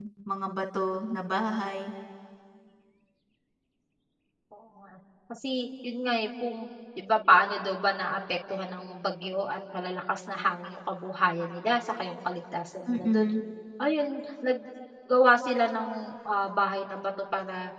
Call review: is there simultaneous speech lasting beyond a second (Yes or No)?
No